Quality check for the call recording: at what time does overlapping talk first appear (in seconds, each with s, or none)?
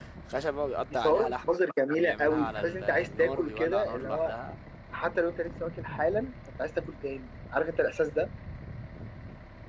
0.9 s